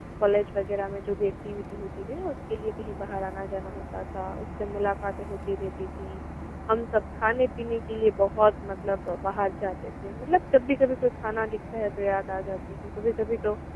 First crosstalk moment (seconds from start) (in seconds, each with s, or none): none